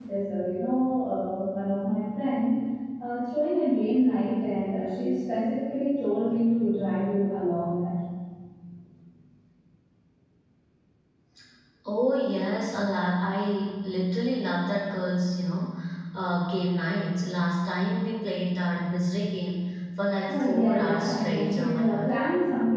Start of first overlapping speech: 20.1 s

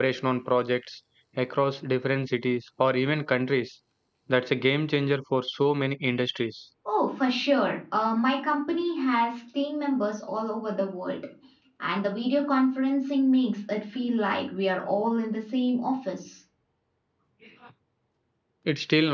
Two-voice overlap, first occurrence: none

